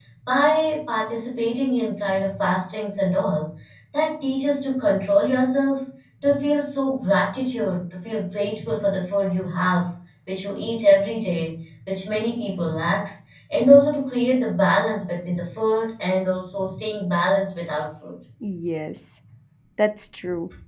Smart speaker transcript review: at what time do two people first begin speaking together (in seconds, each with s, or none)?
none